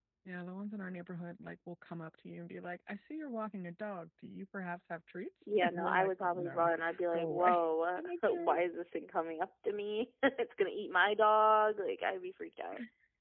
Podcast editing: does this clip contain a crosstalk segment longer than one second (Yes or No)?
Yes